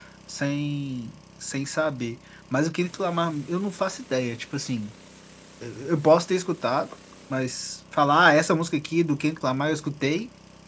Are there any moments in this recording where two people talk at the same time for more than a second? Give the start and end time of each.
none

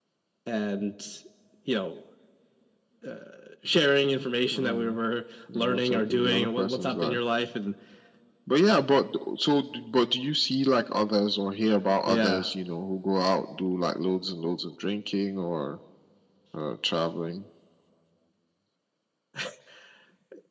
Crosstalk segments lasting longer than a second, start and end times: 5.6-7.2

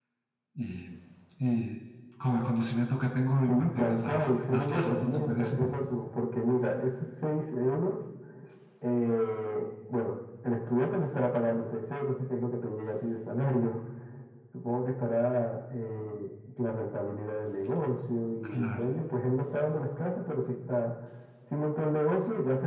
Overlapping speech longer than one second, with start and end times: 3.5-5.5

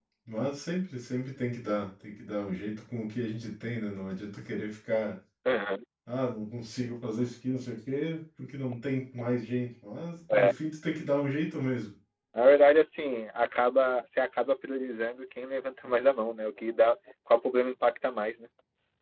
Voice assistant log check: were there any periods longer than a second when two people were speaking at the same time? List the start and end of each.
none

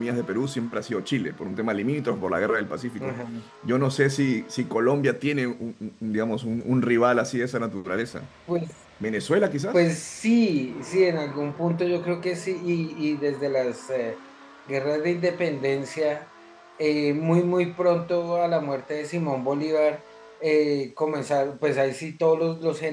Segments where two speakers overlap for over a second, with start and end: none

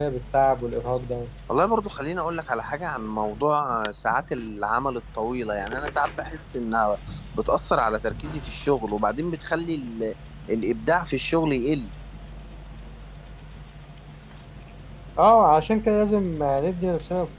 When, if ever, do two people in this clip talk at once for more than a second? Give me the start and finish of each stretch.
none

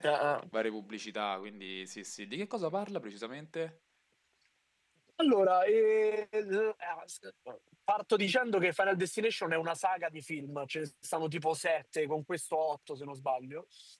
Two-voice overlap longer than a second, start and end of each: none

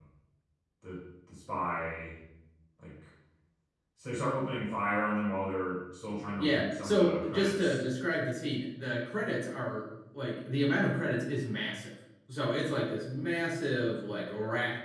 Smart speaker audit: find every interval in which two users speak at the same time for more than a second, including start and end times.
6.4-7.8

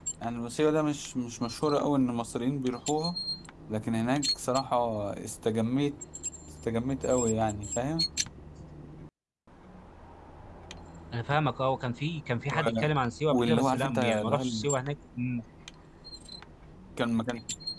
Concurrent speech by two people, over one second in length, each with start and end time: 13.3-14.7

